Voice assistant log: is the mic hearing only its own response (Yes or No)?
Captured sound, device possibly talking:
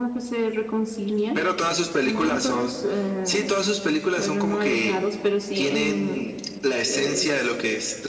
Yes